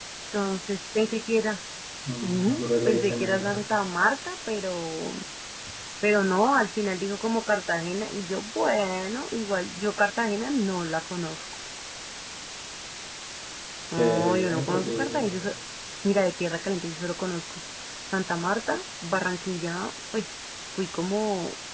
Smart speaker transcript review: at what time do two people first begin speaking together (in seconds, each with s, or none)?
2.2 s